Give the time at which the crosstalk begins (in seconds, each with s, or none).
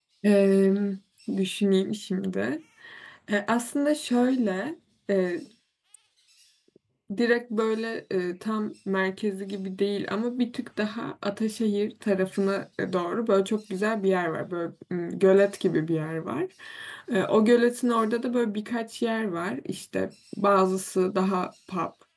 none